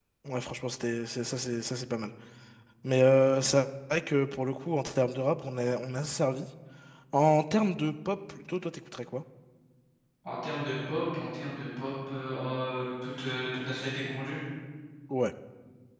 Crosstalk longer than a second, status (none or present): none